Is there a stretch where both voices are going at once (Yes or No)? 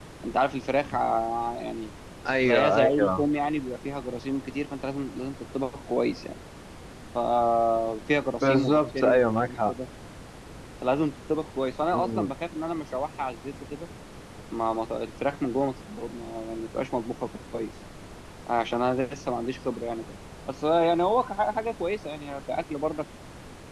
Yes